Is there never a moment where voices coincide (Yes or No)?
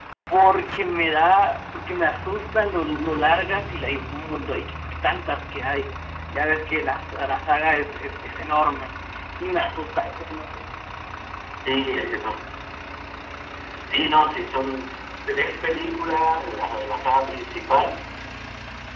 Yes